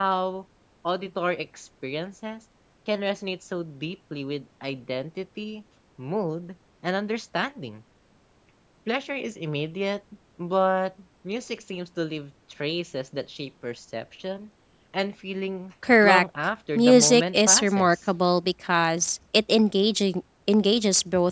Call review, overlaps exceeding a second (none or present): present